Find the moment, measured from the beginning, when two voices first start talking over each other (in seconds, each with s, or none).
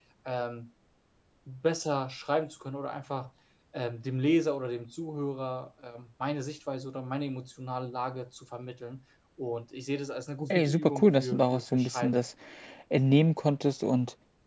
10.5 s